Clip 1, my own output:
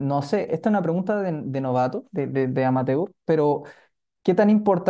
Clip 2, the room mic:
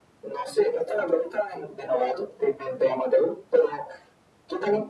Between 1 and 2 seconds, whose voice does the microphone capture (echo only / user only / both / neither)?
echo only